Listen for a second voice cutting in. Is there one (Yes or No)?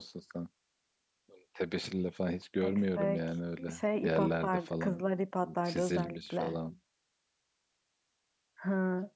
Yes